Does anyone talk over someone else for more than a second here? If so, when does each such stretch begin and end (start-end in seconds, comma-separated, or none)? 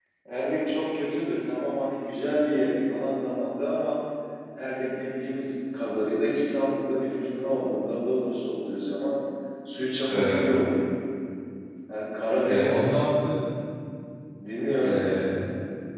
none